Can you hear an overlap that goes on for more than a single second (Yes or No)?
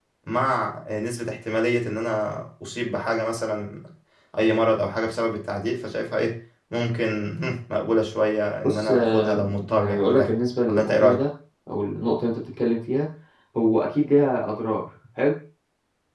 Yes